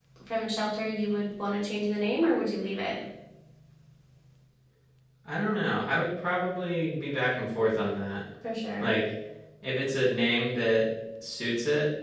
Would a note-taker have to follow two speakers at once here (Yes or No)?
No